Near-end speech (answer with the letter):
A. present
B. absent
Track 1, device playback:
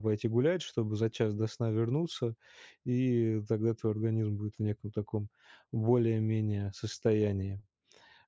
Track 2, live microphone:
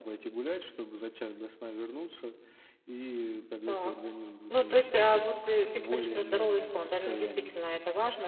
A